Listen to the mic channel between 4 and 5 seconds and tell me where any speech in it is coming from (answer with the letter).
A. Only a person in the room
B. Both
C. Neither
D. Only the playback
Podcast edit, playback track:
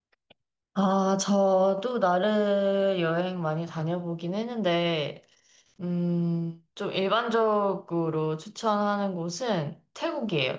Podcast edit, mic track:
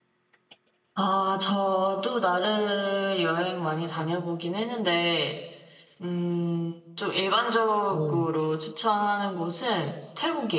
D